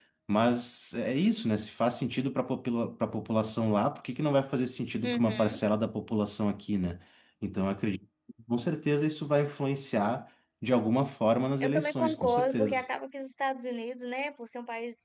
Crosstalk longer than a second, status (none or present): present